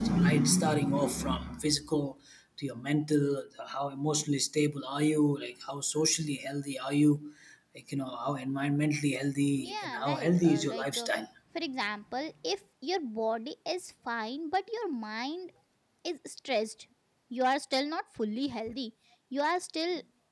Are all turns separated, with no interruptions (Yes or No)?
No